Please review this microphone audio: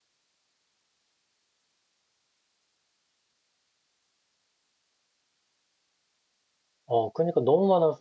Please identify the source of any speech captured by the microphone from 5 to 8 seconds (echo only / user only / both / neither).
user only